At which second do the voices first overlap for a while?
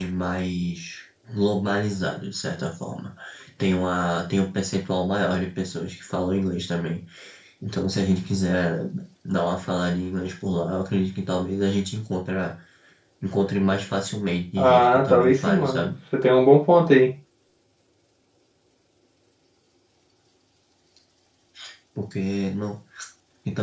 15 s

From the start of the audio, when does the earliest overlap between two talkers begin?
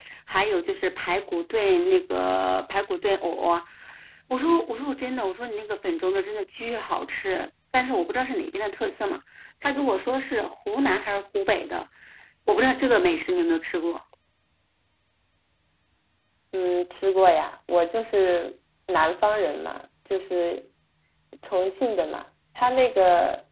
none

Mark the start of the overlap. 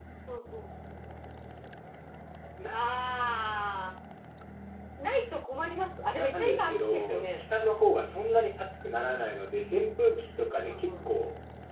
6 s

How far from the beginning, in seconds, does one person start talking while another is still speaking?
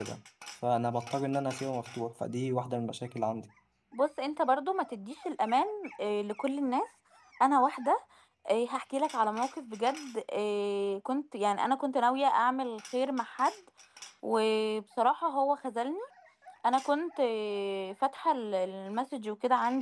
none

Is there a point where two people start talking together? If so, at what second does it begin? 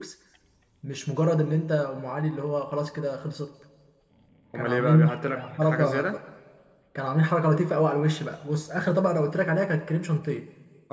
5 s

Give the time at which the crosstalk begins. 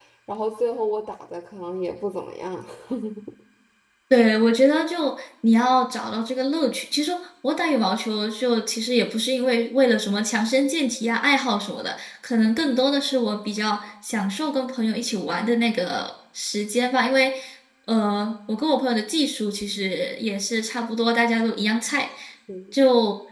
none

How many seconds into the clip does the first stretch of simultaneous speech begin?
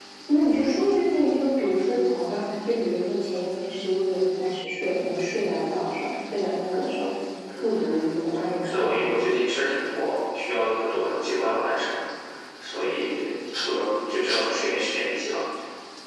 8 s

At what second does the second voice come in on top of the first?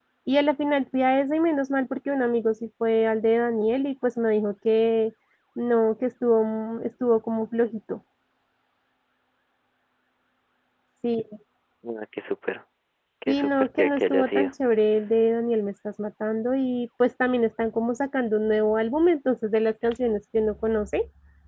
13 s

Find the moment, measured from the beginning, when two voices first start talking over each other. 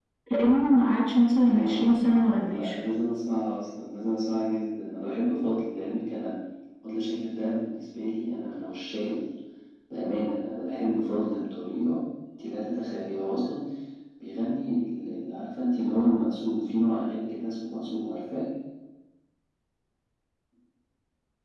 1 s

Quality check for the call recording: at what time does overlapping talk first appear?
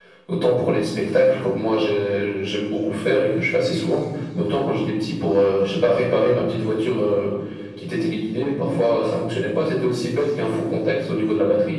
none

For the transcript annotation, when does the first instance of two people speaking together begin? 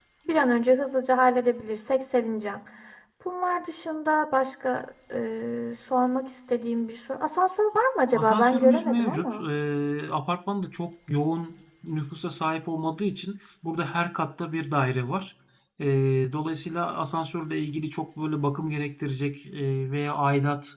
8 s

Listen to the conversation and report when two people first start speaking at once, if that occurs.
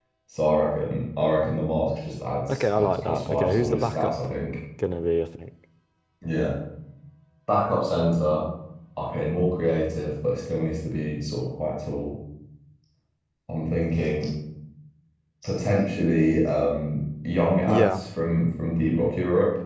2 s

